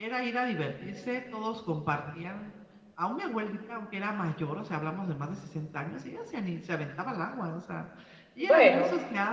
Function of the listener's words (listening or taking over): listening